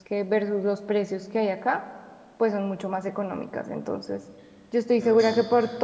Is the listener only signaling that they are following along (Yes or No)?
Yes